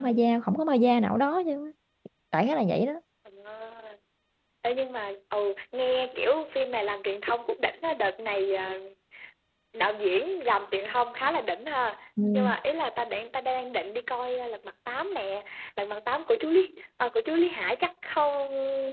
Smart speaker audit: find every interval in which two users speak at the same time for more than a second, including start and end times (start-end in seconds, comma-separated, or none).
none